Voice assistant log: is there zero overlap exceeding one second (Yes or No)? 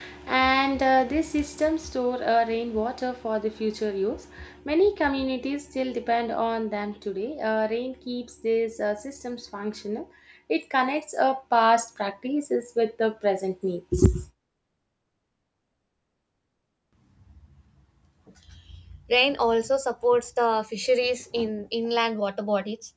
Yes